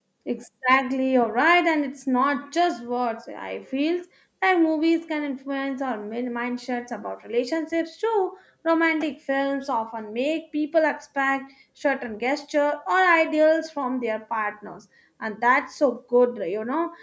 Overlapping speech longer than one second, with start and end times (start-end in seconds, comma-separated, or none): none